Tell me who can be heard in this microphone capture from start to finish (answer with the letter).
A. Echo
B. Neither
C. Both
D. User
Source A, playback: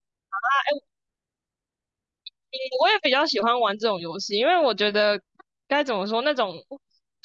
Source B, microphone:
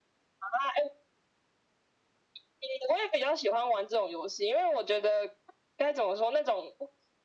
A